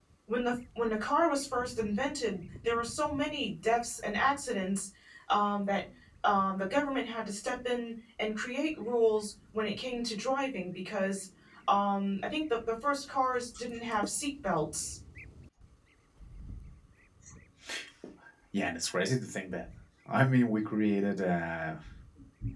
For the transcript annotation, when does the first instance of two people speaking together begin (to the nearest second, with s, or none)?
none